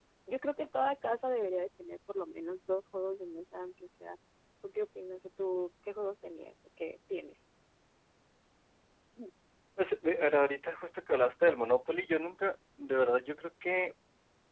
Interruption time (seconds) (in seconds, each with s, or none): none